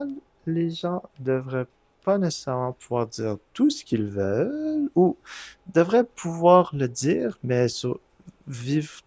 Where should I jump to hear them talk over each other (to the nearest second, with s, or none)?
none